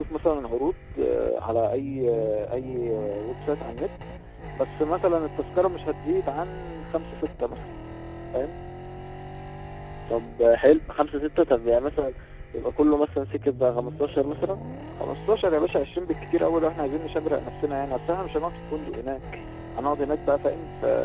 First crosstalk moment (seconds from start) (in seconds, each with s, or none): none